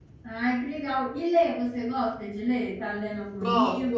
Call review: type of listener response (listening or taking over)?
taking over